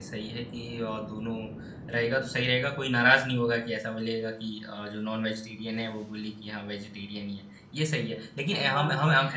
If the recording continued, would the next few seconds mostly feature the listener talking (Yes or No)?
No